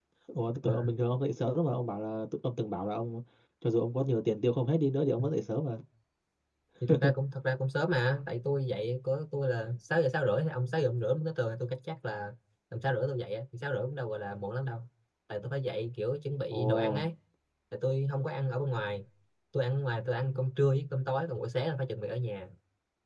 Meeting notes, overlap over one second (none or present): none